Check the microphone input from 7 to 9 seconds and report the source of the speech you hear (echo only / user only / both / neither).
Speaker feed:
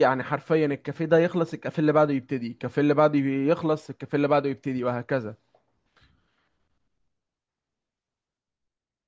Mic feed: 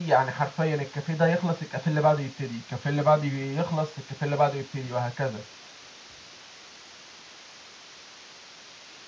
neither